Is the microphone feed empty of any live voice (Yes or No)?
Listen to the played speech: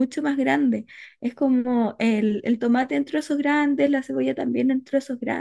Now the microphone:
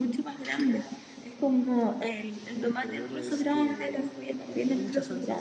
No